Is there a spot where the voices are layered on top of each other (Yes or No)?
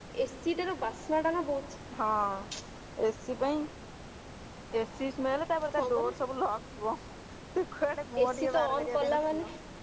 Yes